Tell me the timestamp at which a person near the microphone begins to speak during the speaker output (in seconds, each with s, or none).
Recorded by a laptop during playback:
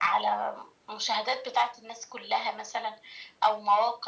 none